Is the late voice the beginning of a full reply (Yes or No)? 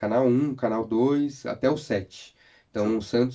No